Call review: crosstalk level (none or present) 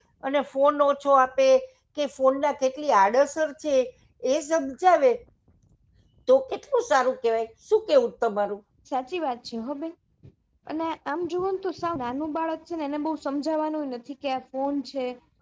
none